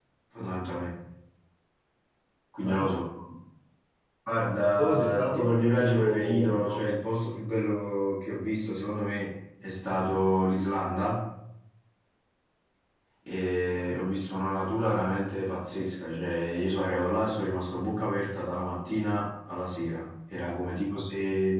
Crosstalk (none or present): present